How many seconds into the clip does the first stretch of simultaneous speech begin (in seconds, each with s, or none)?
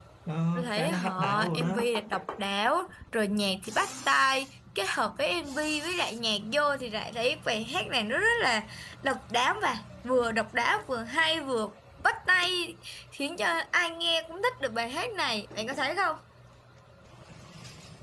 0.6 s